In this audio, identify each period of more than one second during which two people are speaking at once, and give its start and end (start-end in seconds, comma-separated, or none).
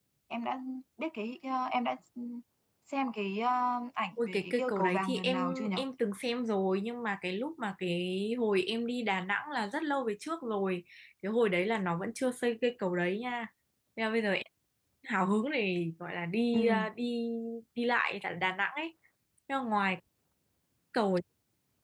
4.3-5.7